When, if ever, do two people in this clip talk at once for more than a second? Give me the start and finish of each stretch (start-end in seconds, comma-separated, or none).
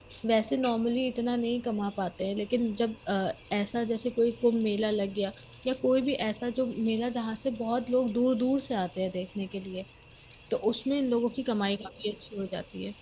none